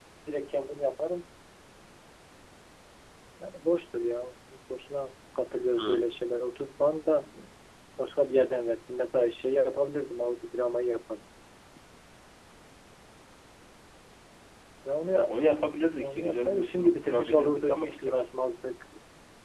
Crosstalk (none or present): present